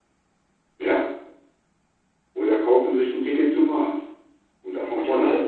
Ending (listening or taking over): taking over